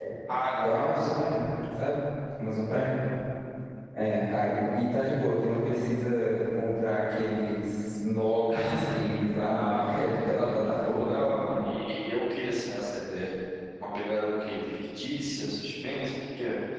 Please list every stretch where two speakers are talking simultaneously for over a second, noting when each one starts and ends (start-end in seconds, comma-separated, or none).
9.4-11.3